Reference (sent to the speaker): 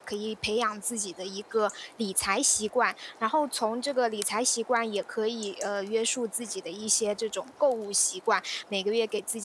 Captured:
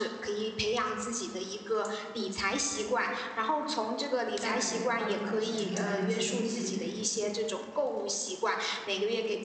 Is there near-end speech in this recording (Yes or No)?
Yes